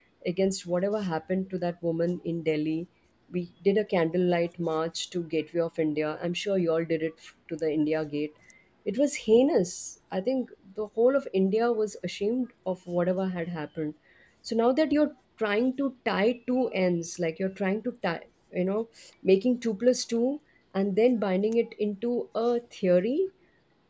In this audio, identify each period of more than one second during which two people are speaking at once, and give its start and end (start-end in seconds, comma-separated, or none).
none